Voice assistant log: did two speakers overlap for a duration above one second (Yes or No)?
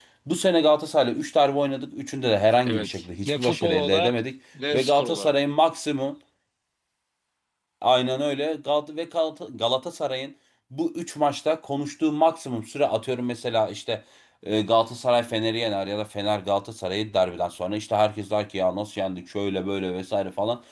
Yes